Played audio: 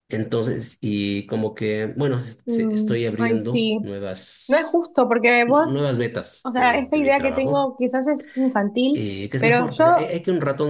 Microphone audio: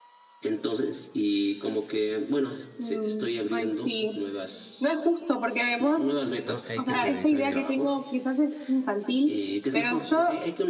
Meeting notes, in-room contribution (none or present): present